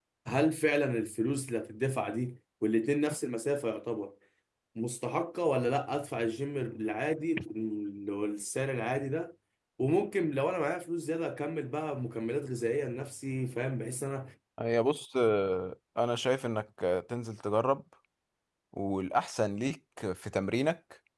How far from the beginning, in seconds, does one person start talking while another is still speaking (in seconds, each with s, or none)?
none